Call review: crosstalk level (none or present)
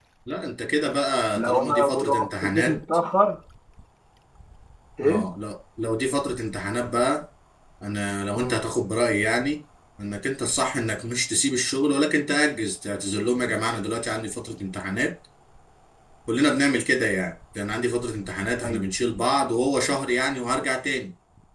present